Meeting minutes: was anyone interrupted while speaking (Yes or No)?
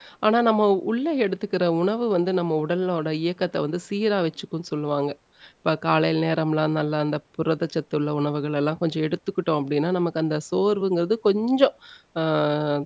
No